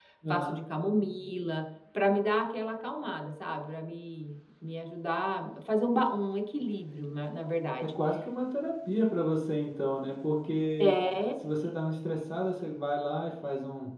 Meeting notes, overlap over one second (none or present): none